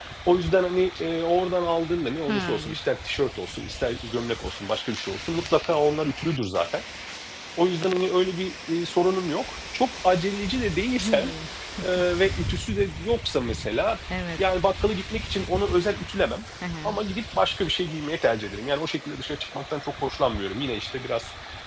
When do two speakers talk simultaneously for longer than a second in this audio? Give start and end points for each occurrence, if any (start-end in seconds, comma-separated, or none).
none